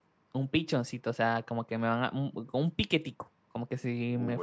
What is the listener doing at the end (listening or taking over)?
taking over